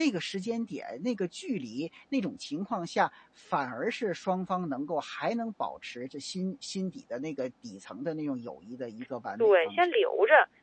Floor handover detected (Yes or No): Yes